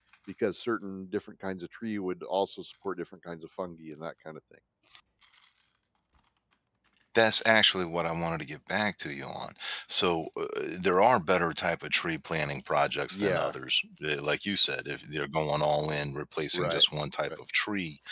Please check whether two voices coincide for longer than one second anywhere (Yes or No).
No